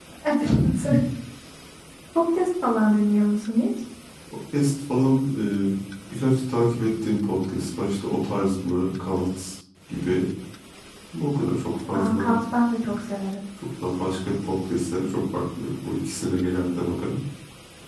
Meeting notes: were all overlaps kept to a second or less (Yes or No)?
Yes